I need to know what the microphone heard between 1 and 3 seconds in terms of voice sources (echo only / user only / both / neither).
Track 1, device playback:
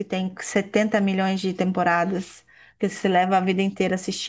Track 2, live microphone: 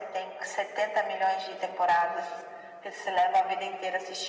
echo only